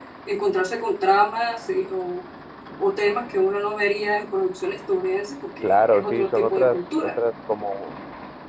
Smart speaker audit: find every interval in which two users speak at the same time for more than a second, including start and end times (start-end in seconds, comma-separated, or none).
5.6-7.2